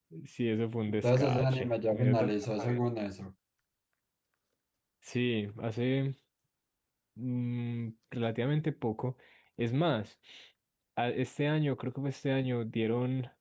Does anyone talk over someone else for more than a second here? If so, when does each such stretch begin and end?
0.9-2.8

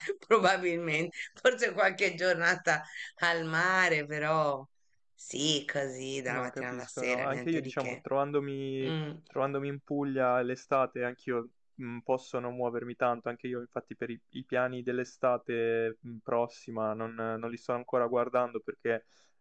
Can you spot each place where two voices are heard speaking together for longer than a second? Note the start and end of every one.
6.3-8.0

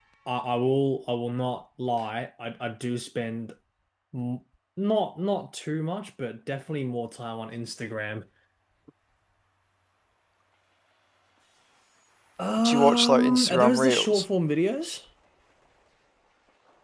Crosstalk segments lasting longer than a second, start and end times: 12.6-14.2

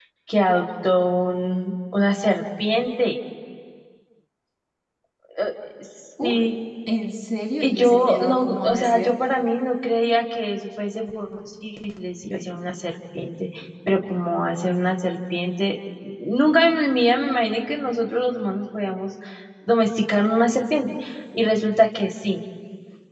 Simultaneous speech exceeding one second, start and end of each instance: 7.6-9.1

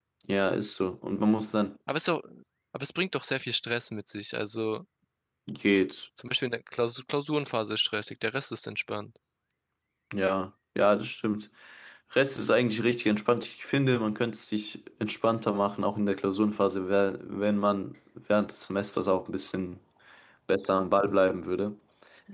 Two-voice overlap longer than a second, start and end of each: none

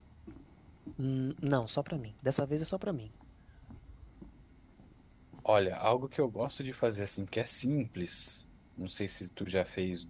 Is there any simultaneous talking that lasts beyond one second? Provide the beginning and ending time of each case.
none

